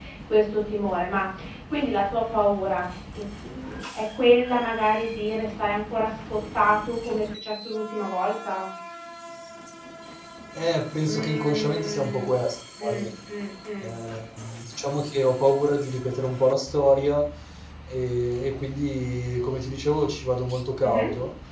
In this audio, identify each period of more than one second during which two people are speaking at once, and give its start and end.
11.0-12.3

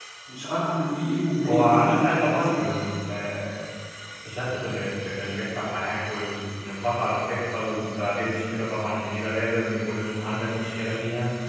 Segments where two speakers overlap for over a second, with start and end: 1.4-2.8

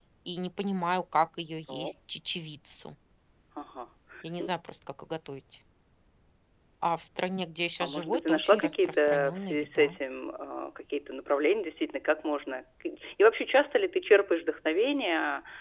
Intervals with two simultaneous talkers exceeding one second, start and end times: 7.8-10.0

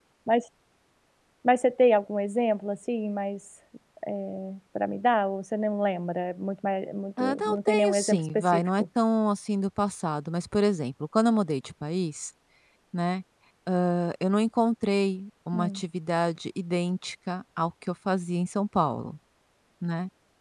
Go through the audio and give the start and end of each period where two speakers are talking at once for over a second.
7.2-8.8

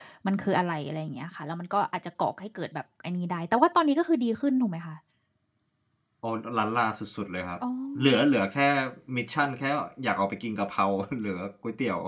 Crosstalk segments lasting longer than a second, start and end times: none

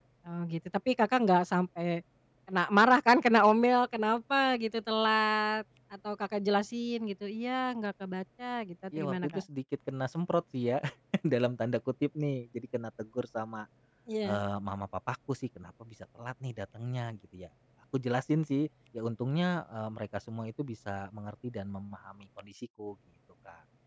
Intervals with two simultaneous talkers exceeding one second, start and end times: none

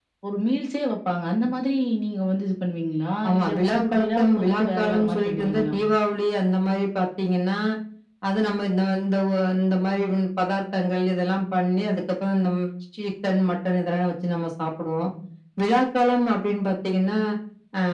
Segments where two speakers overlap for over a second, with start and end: 3.3-5.7

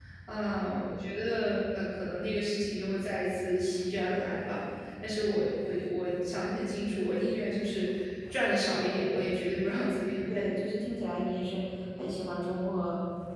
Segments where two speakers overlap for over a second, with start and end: none

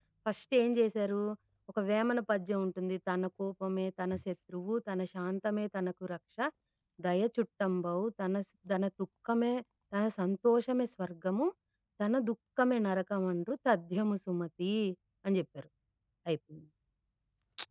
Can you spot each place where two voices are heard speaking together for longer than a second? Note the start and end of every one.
none

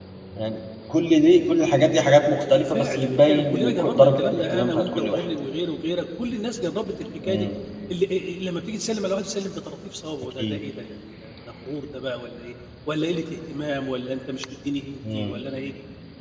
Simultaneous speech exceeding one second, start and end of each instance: 2.5-5.2

